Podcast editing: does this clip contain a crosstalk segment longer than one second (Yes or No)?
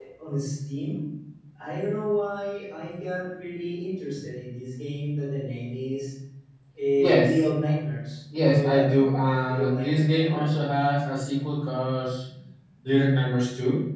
Yes